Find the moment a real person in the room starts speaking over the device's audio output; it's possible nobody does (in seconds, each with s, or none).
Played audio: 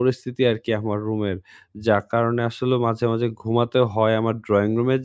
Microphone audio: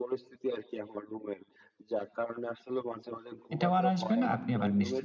3.5 s